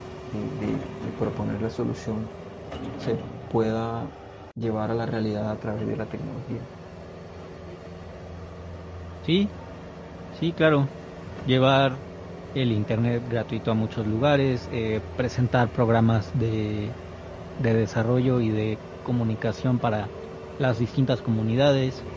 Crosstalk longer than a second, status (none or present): none